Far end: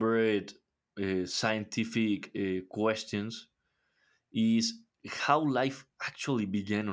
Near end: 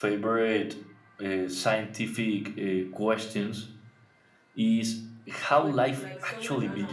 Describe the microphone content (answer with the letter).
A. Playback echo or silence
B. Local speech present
B